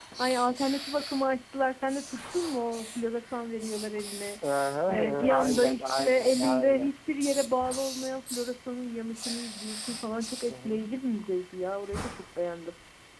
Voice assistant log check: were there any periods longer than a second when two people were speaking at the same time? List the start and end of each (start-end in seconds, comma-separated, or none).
4.9-6.9